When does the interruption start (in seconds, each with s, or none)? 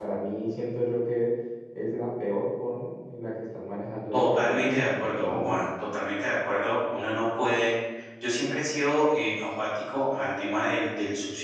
4.1 s